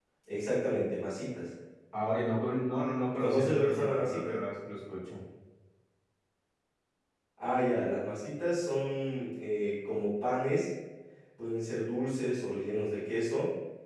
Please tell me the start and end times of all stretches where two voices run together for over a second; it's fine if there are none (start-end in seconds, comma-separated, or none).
3.2-4.4